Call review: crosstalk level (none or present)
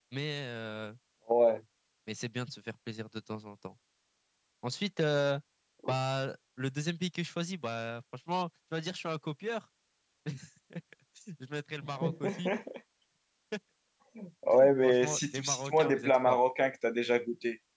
present